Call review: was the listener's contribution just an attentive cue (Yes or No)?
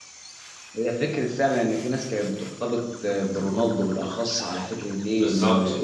Yes